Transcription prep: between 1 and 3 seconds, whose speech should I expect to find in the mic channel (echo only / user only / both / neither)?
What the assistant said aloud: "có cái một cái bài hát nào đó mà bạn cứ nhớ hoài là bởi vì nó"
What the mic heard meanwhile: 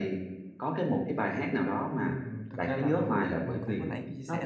both